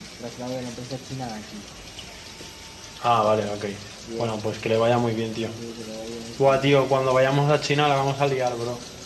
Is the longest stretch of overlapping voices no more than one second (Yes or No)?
Yes